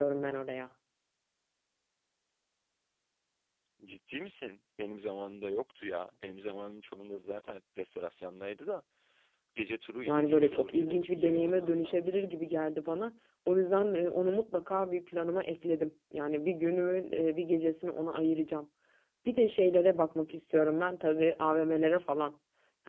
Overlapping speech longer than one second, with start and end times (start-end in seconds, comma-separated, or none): 10.0-12.2